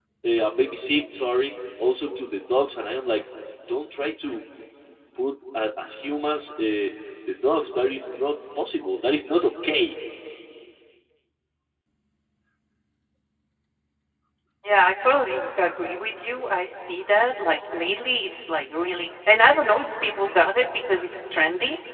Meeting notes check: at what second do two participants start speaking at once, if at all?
none

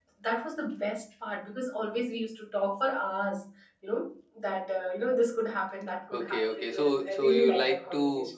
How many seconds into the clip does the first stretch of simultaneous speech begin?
6.1 s

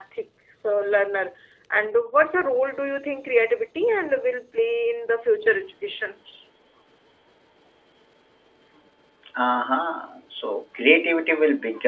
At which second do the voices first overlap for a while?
none

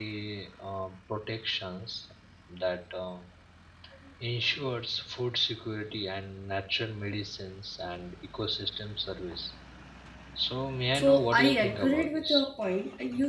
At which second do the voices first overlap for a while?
11.0 s

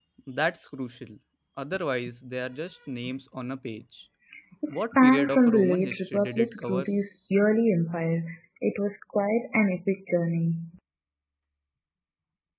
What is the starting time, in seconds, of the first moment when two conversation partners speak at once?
4.7 s

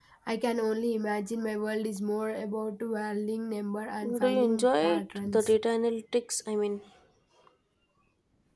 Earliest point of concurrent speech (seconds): 4.0 s

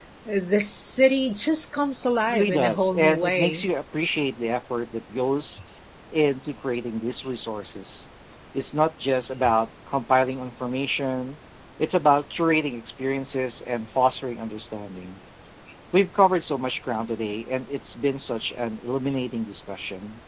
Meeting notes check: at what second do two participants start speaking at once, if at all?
2.3 s

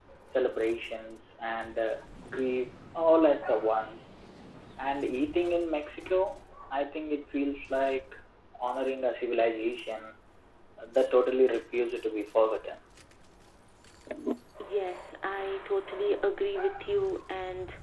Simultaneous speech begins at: none

